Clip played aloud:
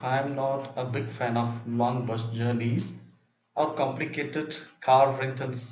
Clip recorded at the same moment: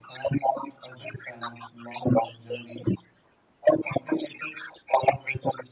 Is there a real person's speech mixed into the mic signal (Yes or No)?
No